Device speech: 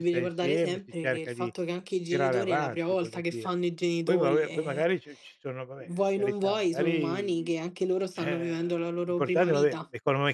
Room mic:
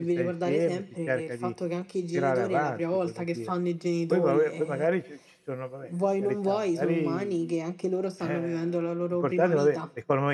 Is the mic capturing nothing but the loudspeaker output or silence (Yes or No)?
Yes